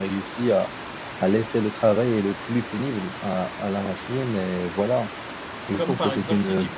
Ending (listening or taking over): taking over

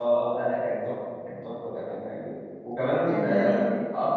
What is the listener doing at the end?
listening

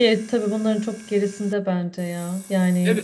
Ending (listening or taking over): taking over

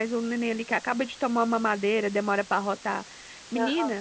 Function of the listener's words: listening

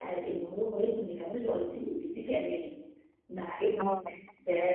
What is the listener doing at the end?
listening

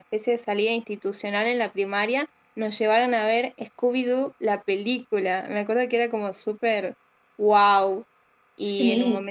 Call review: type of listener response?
taking over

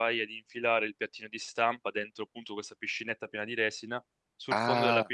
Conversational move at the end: listening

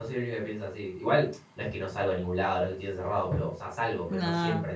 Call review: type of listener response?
listening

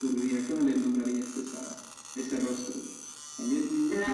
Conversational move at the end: taking over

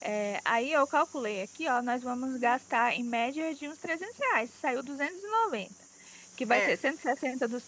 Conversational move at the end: listening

